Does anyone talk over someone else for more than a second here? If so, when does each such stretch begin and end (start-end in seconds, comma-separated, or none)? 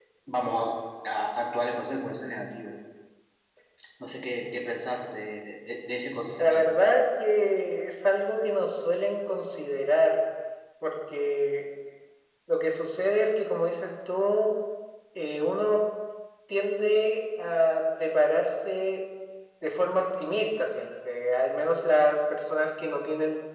none